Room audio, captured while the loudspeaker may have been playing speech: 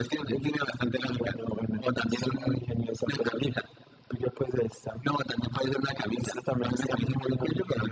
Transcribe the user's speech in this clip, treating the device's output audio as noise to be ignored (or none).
none